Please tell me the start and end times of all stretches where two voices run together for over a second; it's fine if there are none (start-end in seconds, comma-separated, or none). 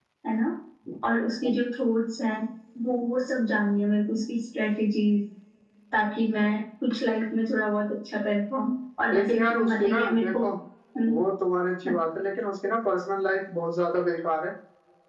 9.1-10.4